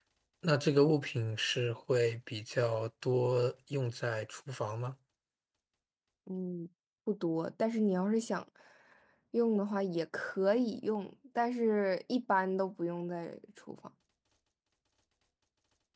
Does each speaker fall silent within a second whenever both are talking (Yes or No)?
Yes